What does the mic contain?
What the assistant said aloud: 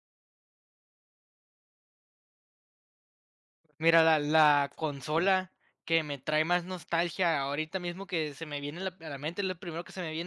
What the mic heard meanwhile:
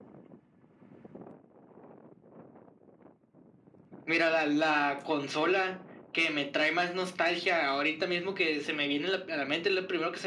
echo only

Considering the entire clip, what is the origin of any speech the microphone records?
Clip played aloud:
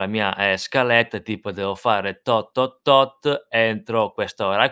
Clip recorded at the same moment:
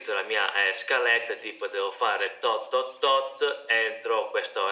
echo only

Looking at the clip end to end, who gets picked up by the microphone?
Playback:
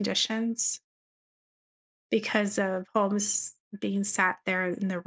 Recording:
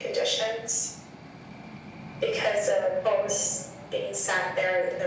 echo only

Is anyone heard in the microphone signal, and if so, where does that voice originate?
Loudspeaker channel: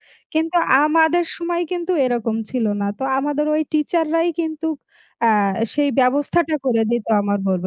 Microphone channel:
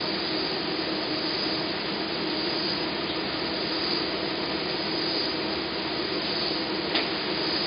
neither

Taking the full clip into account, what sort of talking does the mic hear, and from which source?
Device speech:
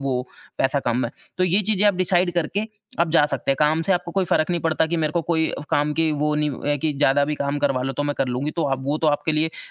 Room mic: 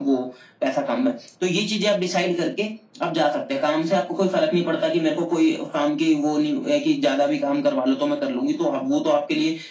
echo only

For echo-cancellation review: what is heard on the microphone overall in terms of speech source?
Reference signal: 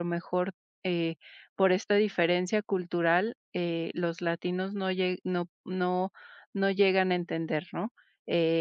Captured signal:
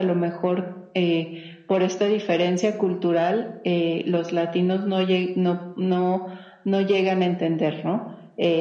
echo only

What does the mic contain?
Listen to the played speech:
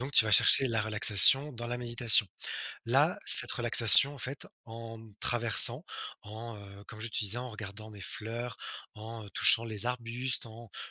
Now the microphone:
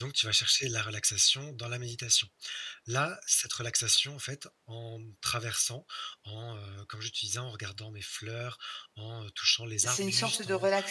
both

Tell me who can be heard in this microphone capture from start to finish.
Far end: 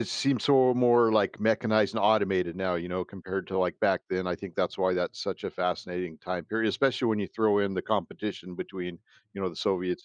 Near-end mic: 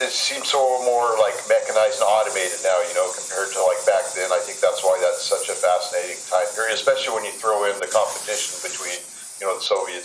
echo only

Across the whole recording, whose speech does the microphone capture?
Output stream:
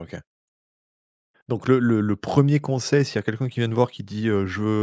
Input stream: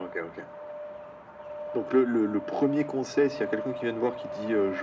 echo only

